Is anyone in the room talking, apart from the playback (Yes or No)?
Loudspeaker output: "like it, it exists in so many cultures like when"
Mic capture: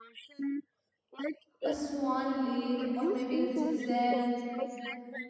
Yes